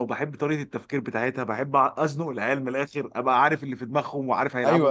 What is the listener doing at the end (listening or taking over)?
taking over